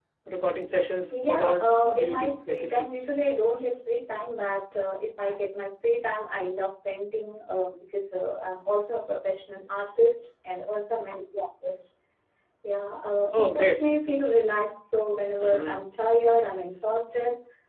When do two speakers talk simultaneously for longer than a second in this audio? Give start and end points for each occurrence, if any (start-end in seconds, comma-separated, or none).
1.3-2.9